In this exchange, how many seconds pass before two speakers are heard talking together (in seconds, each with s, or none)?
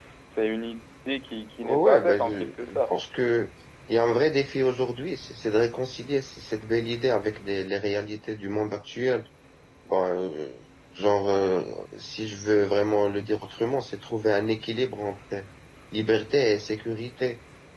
1.6 s